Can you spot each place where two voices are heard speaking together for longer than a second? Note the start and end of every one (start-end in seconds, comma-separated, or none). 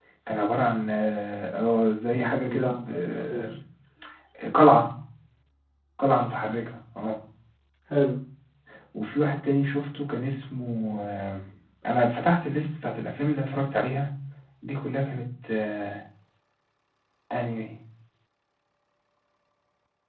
2.1-3.4